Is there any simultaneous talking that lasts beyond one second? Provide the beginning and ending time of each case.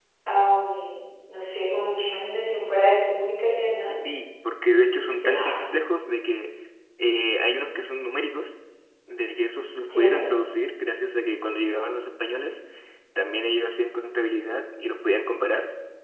none

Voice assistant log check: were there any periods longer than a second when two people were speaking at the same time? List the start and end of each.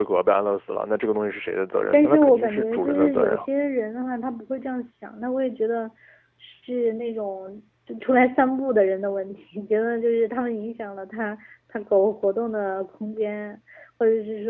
1.9-3.4

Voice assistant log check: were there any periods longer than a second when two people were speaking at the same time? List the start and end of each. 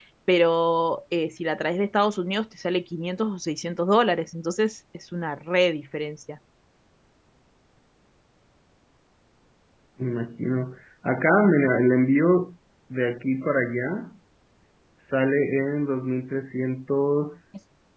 none

